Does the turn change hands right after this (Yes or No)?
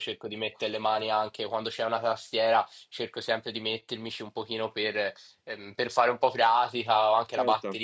No